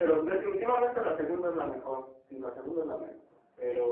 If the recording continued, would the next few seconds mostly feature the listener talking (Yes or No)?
No